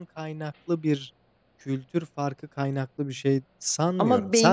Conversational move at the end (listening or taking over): taking over